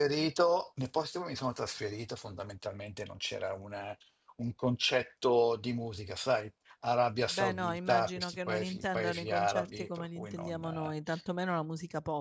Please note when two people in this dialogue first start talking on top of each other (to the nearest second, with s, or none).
7 s